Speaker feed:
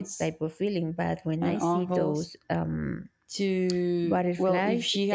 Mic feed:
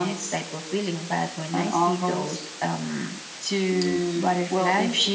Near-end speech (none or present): present